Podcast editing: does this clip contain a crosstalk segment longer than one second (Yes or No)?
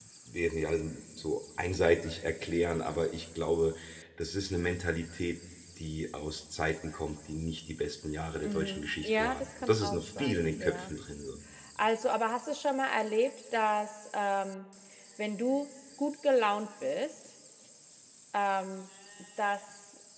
Yes